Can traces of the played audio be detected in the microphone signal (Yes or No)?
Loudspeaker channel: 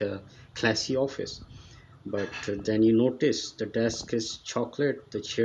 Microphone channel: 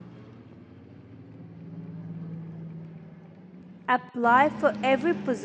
No